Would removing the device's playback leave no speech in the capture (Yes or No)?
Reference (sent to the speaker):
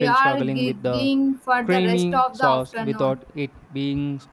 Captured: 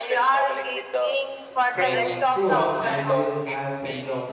No